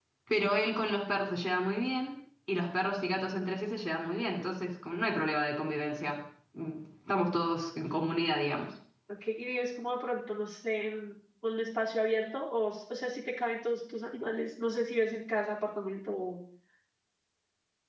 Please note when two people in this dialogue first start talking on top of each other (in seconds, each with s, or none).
none